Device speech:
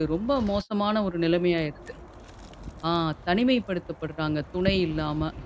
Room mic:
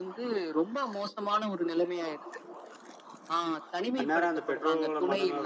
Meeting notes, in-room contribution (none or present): present